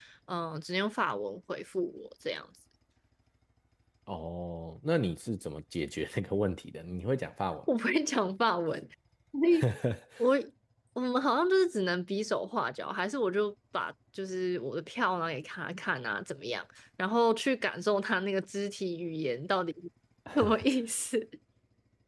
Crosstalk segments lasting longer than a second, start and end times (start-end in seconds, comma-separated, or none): none